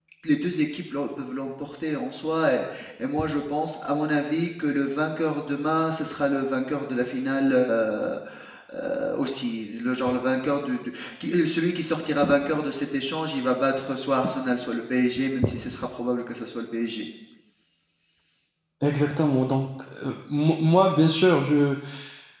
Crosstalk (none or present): none